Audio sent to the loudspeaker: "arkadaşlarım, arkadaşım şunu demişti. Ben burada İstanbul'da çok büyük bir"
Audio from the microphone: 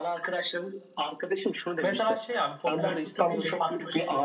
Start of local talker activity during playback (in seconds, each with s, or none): 1.8 s